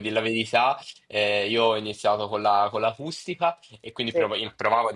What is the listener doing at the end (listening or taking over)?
listening